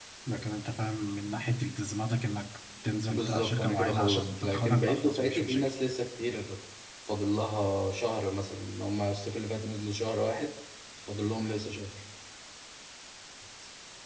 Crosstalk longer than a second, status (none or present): present